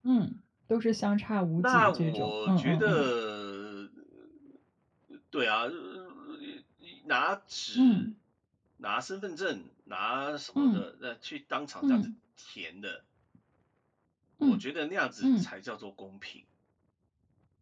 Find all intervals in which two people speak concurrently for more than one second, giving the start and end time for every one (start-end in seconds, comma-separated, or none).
1.6-3.1